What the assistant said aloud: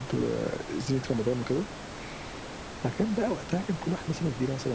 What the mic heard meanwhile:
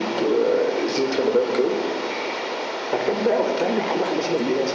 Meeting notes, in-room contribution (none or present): present